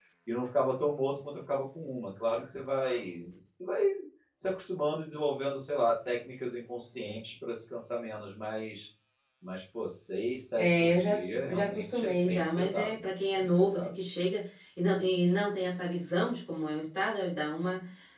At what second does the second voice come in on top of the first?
11 s

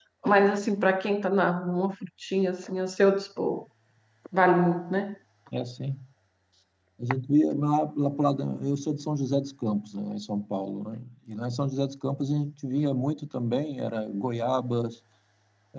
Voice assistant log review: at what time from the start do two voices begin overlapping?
none

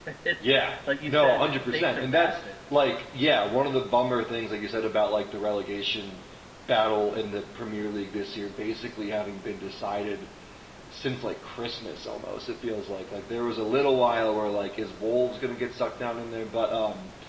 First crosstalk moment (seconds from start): 1 s

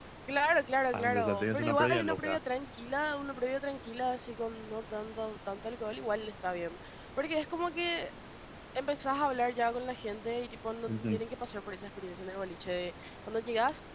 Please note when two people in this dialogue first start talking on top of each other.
1 s

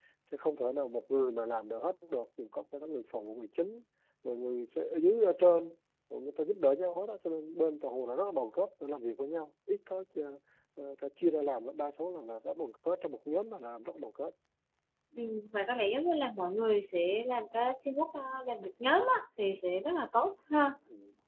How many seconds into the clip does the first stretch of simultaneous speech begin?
none

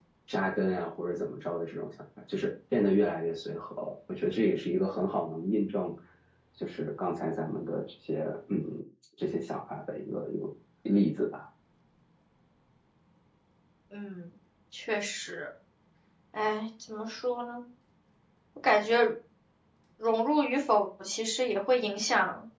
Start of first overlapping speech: none

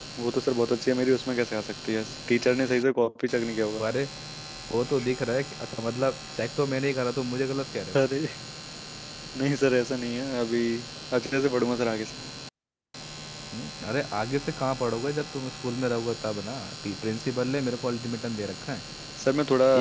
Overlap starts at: none

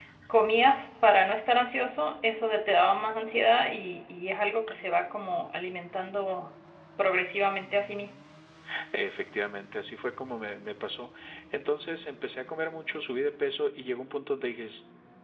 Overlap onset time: none

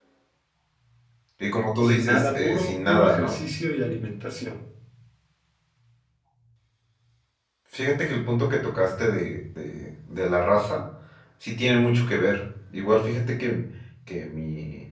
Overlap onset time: 2 s

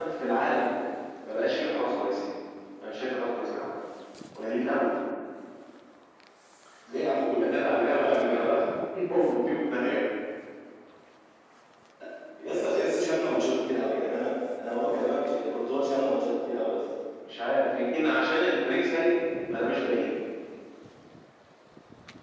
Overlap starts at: 7 s

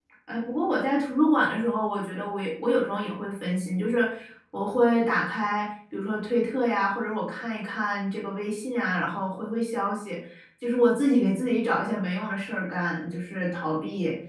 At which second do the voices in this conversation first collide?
none

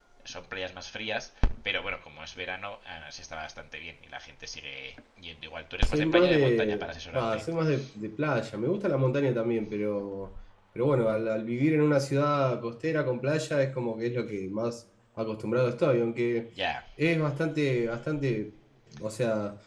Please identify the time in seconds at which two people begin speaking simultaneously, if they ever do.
6 s

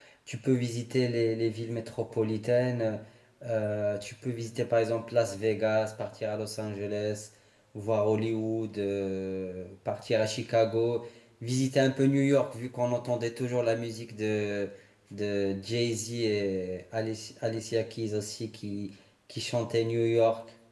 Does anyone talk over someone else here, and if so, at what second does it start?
none

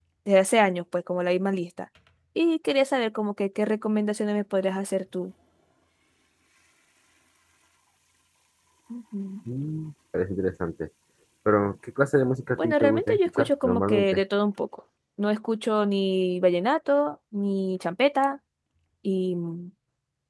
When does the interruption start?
13 s

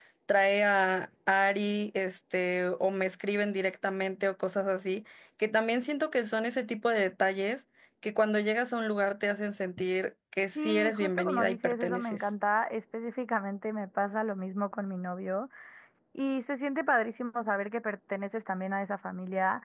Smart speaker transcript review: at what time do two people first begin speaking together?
11 s

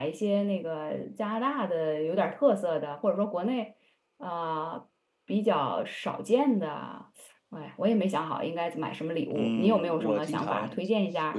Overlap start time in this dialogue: 9 s

